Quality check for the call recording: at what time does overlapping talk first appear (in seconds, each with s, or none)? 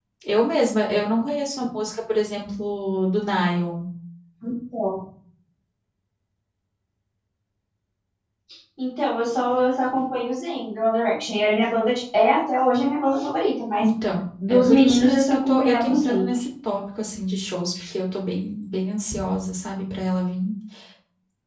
14.5 s